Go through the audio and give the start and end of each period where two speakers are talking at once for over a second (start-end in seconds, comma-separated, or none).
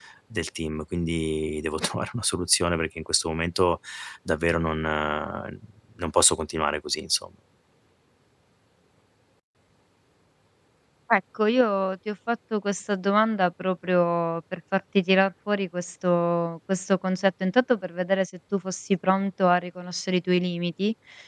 none